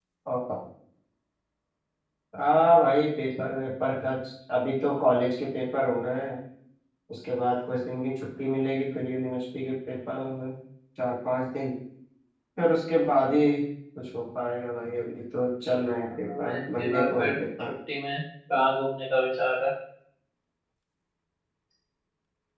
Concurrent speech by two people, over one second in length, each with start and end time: 16.3-17.7

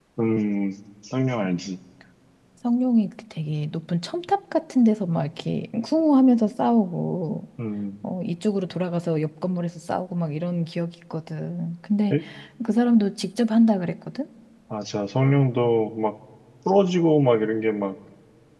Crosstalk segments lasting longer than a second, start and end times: none

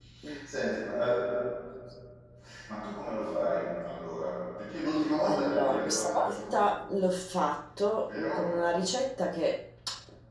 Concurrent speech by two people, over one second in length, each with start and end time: 5.3-6.6

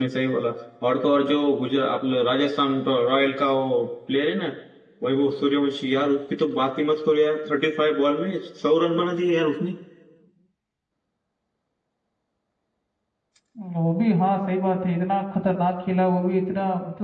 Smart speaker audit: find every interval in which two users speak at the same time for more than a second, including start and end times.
none

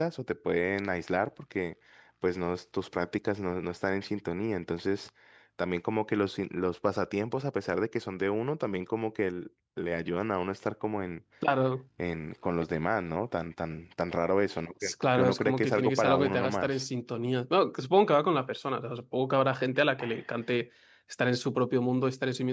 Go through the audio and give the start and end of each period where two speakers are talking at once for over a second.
14.8-16.8

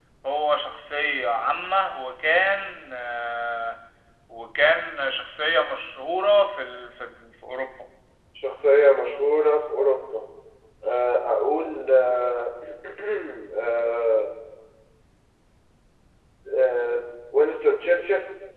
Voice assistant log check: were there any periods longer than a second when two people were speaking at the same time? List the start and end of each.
none

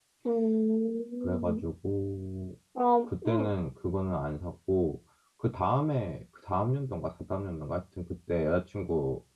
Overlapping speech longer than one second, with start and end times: none

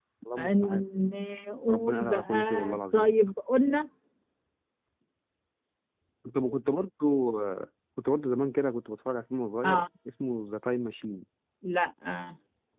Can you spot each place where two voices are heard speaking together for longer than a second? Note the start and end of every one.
1.7-3.1

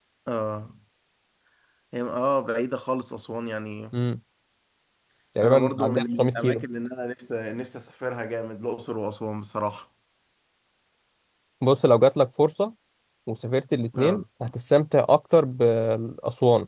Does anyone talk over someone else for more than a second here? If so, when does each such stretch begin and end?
5.4-6.6

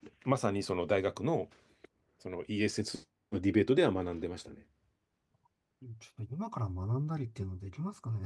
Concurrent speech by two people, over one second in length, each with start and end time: none

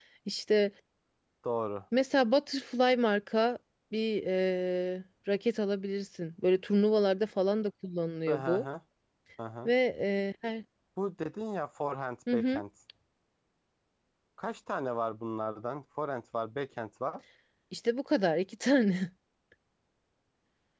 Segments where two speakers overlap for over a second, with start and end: none

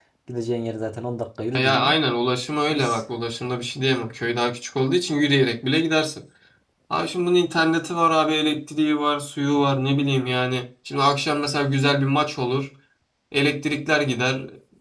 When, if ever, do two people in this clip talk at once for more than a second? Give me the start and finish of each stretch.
none

